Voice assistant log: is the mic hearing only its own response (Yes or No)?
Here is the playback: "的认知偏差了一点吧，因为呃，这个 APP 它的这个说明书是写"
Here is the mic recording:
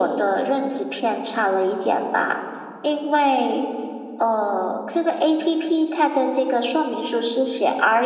Yes